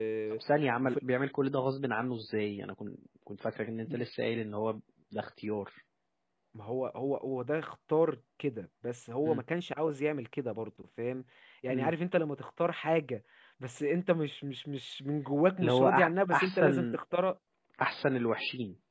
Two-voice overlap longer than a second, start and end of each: 15.6-17.0

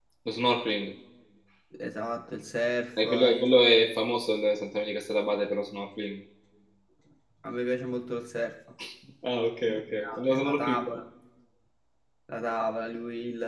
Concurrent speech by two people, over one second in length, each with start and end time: 9.7-11.0

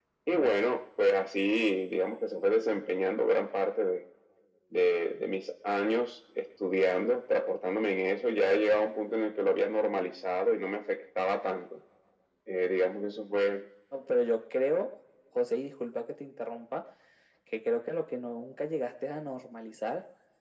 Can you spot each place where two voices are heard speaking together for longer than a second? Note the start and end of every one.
none

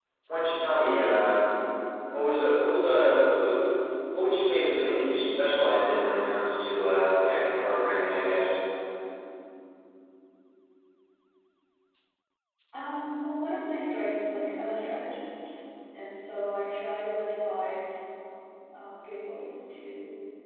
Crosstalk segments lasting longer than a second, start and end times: none

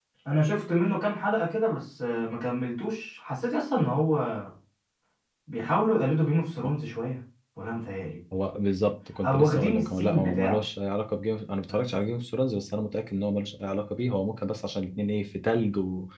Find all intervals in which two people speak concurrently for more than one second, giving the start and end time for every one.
9.2-10.6

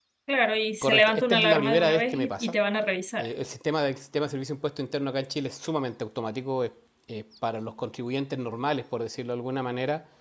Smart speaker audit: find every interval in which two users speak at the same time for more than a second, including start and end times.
0.8-2.5

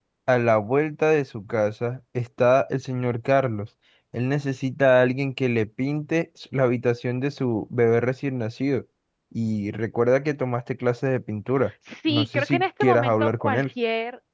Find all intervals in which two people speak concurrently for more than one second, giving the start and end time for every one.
12.1-13.6

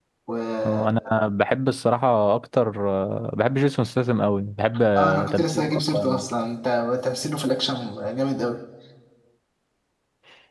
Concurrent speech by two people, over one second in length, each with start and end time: 5.0-6.2

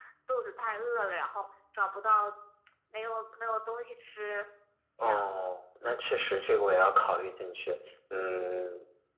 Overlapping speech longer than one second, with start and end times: none

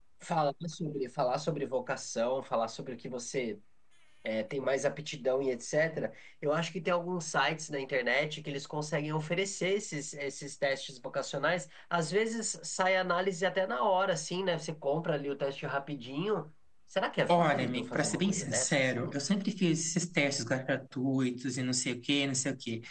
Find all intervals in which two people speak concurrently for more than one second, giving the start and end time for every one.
17.3-19.2

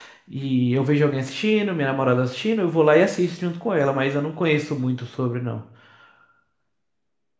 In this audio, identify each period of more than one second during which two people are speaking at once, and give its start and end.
none

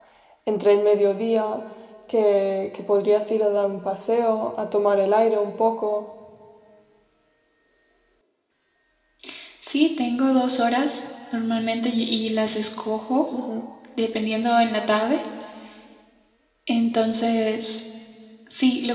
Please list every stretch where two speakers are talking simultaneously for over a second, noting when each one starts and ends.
none

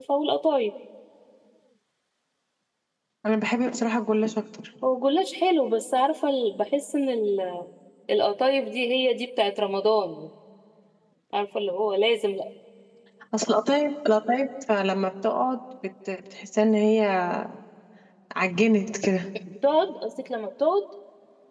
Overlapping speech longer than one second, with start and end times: none

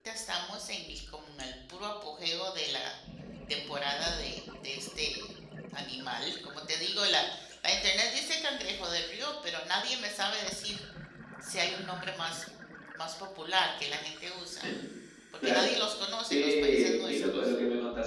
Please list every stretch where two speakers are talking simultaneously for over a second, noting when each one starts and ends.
16.3-17.5

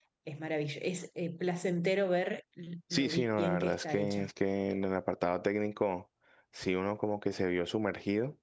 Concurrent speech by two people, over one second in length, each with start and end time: 2.9-4.3

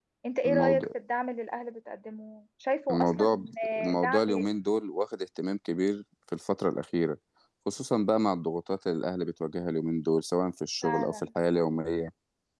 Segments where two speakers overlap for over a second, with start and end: 2.9-4.2

